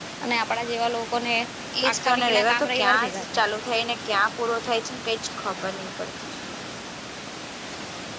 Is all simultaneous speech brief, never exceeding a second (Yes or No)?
No